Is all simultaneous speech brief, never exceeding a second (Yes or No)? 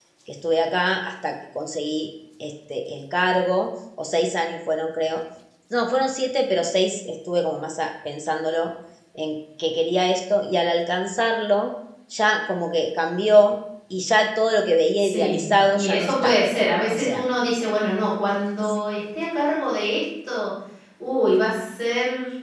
No